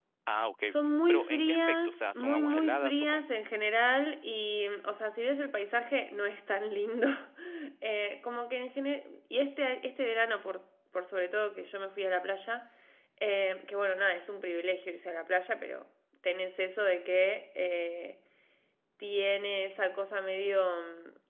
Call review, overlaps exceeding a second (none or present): present